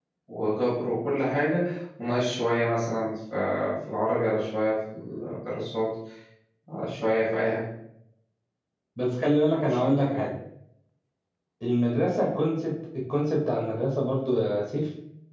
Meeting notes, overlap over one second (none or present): none